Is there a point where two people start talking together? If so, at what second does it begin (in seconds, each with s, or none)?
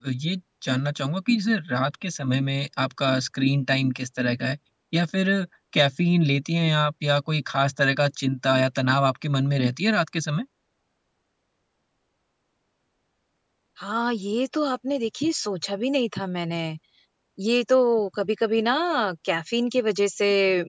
none